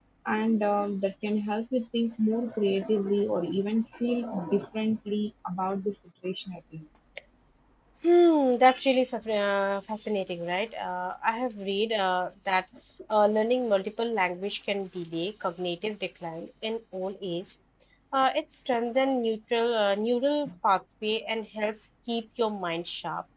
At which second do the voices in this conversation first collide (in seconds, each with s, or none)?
none